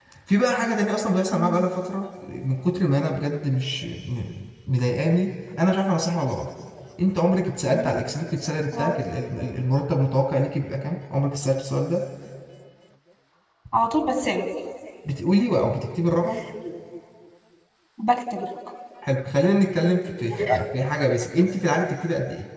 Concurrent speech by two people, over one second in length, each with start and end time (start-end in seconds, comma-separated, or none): none